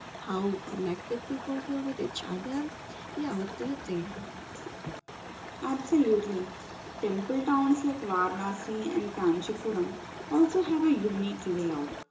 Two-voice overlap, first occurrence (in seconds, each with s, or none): none